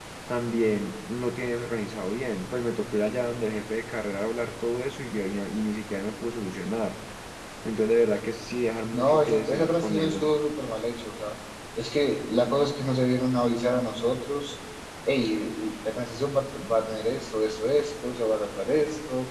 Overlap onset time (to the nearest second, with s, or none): 9 s